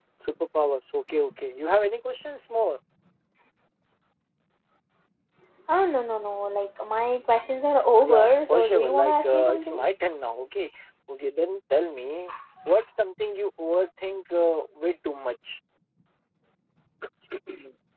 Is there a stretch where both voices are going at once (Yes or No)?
Yes